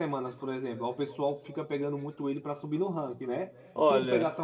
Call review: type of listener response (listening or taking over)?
listening